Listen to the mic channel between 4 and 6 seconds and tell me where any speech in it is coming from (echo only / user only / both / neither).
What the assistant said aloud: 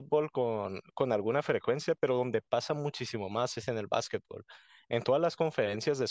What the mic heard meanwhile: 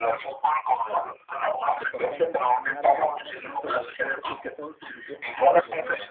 both